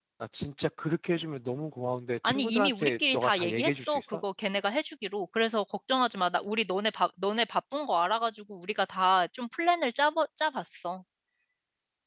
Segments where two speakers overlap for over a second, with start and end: 2.2-4.2

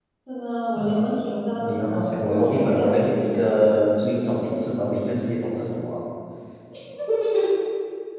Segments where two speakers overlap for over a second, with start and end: 1.6-2.9

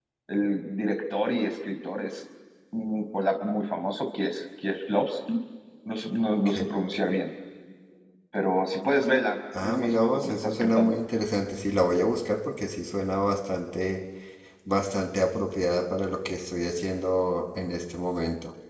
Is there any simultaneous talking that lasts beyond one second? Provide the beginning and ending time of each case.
9.6-10.9

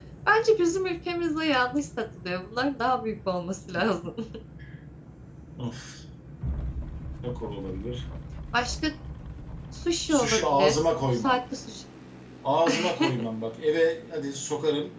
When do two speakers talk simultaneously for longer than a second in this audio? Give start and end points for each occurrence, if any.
10.1-11.4

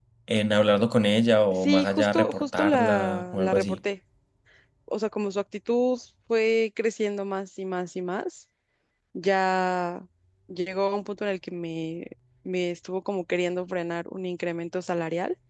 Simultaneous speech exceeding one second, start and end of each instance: 1.5-3.8

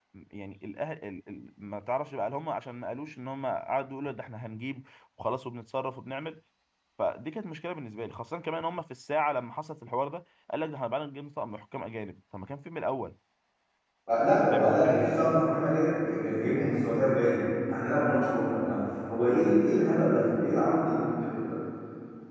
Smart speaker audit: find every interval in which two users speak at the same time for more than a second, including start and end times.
none

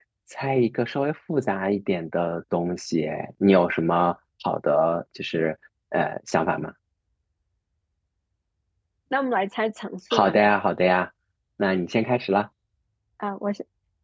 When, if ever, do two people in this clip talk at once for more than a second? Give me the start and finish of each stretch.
none

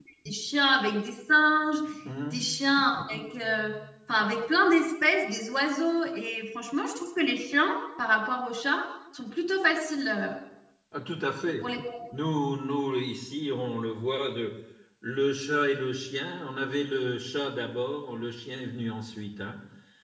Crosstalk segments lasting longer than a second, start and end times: none

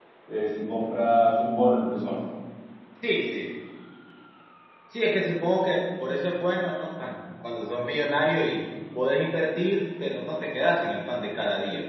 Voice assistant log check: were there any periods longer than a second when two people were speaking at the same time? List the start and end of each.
none

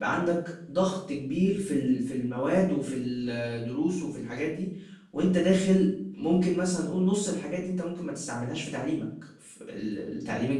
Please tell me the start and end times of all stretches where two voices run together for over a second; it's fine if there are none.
none

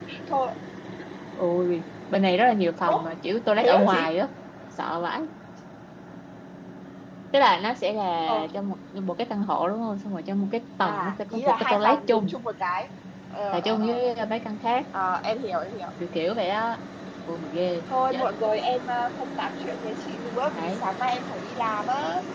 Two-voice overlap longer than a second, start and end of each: 10.8-12.4

